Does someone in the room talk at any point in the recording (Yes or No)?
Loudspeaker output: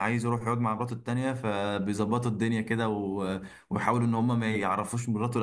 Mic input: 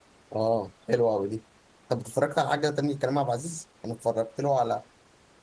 Yes